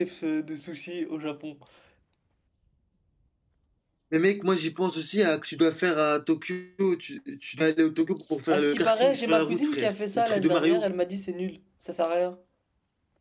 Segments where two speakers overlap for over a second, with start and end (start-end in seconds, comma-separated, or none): 8.5-10.9